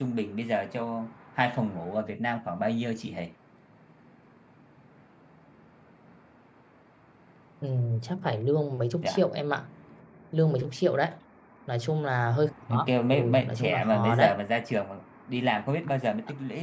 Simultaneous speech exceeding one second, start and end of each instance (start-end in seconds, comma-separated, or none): 12.7-14.3